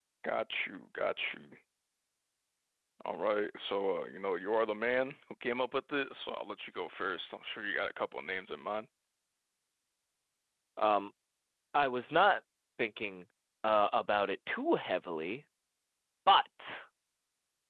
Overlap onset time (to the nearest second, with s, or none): none